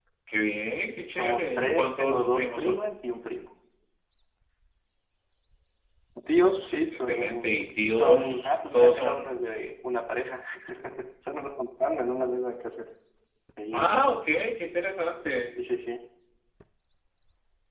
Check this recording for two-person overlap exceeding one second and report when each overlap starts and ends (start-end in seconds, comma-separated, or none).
1.1-2.8, 6.9-9.4